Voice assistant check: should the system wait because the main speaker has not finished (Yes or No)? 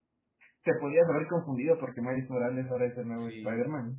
No